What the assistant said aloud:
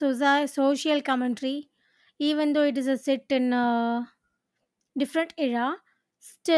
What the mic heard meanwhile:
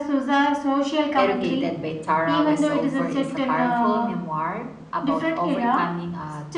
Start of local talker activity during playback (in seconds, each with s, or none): 1.1 s